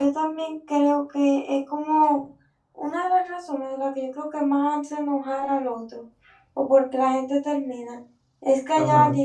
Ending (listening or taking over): listening